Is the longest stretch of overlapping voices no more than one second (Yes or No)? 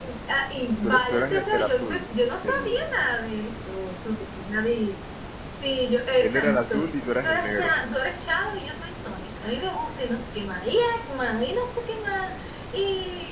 No